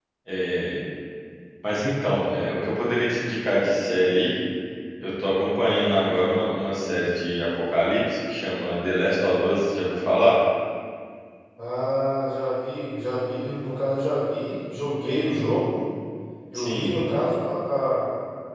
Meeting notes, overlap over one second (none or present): none